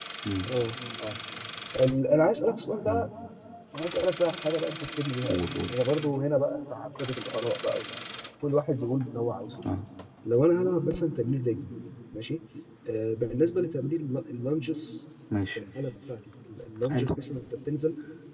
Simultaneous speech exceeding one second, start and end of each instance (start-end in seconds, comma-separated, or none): none